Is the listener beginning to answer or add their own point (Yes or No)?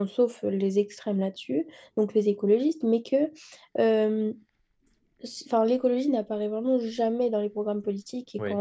No